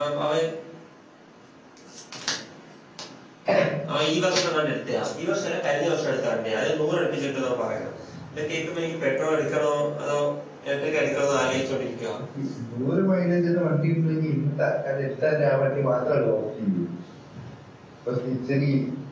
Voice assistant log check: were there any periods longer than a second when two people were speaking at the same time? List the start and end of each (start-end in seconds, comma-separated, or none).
none